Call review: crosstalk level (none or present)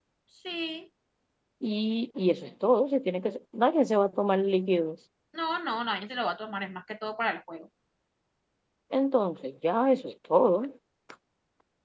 none